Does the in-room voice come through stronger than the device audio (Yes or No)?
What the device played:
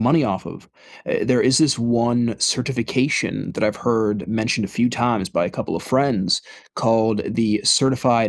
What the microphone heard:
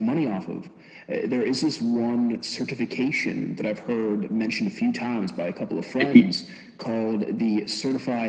Yes